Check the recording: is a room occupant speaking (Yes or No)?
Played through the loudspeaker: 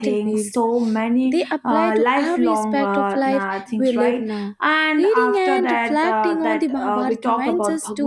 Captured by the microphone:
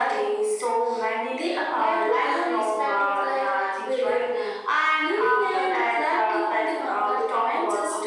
No